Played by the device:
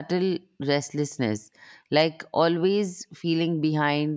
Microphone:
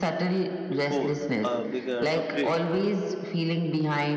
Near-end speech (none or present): present